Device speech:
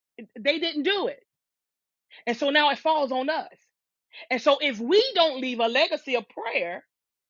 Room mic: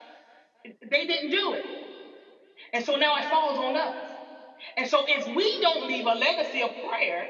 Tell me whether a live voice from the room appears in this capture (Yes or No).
No